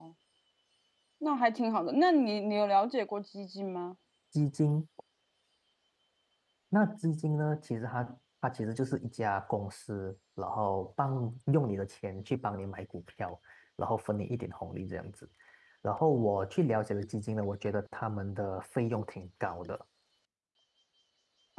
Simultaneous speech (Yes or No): No